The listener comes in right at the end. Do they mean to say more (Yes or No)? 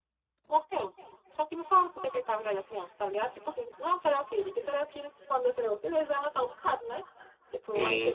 Yes